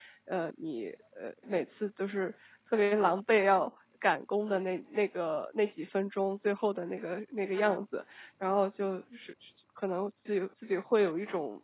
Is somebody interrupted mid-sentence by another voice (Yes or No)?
No